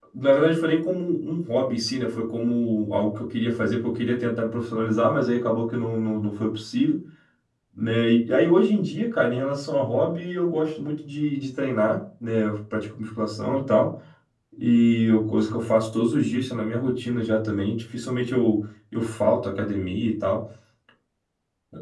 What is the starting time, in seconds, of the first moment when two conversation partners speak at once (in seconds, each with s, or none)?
none